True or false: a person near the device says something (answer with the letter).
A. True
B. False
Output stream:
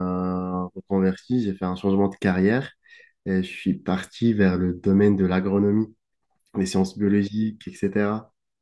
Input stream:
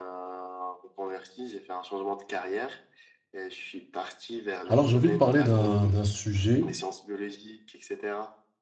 A